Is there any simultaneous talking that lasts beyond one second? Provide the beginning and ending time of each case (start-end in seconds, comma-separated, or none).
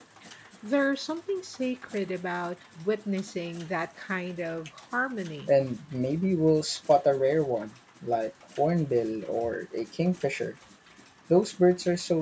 none